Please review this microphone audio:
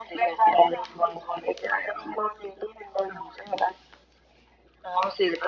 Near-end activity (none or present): none